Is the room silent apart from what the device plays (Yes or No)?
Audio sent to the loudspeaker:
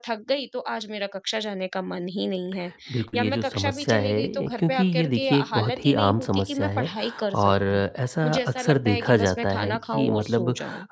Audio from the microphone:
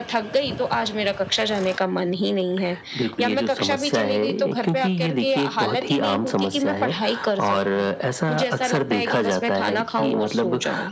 Yes